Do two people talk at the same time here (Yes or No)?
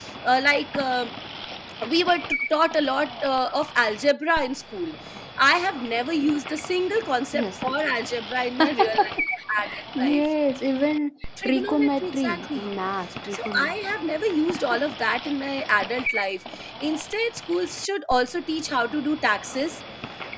Yes